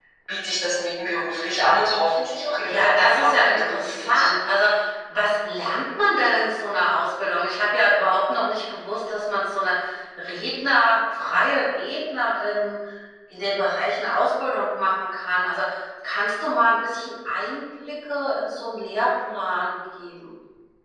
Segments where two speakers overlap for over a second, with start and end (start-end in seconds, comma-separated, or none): 2.6-4.3